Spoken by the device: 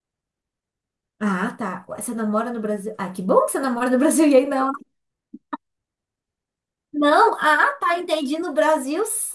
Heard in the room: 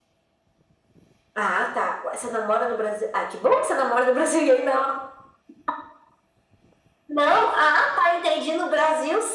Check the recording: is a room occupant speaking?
No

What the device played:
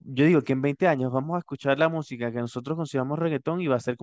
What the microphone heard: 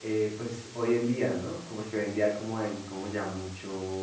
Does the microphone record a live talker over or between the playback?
Yes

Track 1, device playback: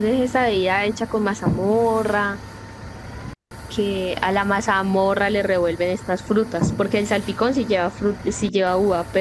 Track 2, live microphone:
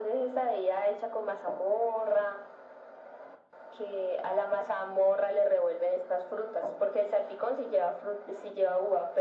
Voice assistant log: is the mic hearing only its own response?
Yes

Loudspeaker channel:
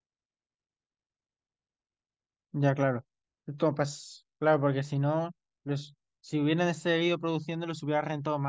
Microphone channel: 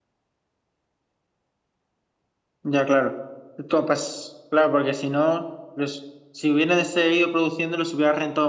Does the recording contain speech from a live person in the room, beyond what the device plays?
No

